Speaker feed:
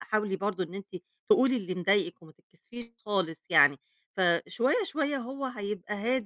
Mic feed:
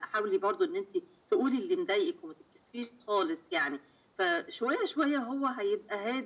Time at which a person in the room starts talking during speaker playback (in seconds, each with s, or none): none